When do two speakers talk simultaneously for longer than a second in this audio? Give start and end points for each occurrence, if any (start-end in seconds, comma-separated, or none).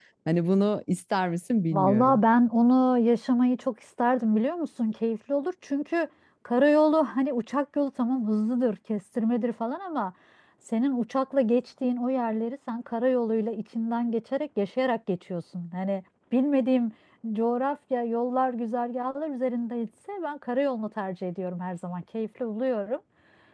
none